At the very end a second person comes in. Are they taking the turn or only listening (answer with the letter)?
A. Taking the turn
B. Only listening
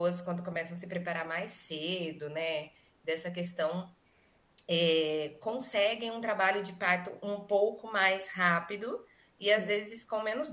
B